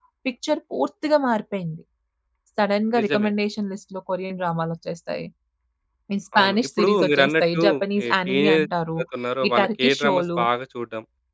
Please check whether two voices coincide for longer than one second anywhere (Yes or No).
Yes